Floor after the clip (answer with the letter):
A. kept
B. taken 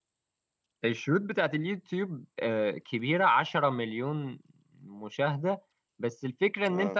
A